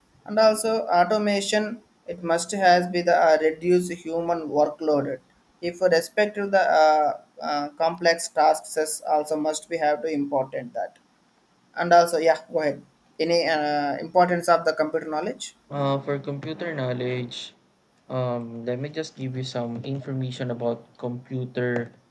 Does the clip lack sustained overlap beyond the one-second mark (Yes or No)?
Yes